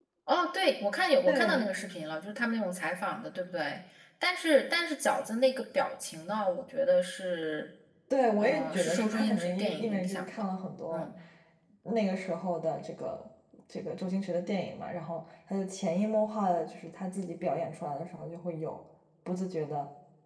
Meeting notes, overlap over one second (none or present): present